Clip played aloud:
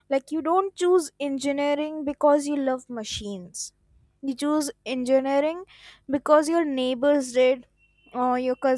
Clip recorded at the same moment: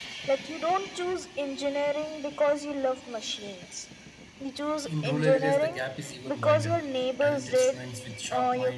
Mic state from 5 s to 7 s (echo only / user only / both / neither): both